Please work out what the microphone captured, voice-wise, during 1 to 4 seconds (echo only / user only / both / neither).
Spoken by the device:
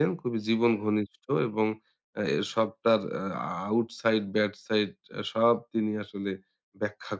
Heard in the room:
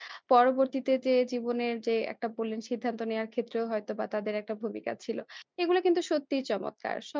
user only